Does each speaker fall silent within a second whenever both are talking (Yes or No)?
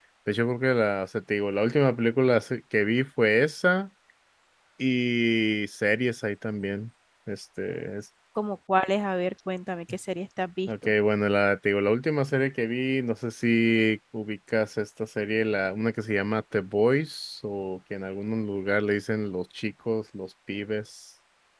Yes